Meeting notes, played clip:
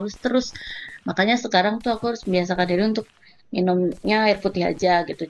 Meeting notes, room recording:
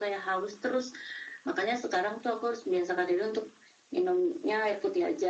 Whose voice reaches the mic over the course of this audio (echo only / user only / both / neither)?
echo only